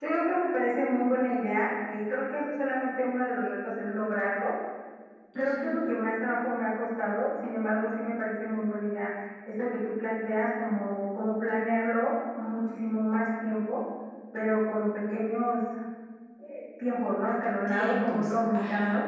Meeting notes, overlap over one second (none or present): present